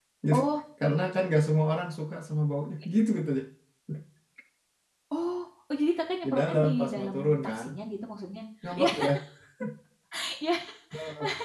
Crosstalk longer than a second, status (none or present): present